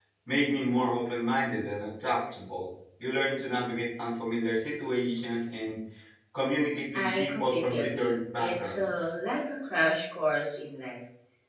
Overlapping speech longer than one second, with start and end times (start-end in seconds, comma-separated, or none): 6.9-9.1